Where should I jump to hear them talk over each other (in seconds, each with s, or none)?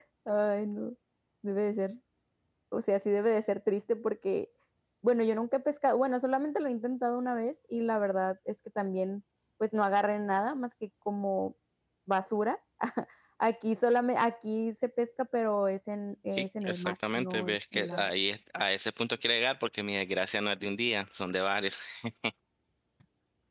16.3 s